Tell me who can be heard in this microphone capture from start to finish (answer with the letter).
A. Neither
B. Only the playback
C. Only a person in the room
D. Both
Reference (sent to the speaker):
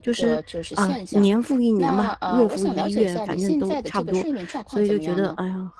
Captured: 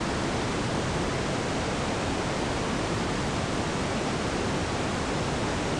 A